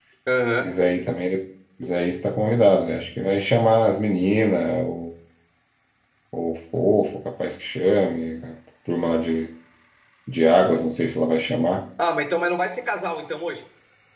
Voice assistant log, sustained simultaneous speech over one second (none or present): none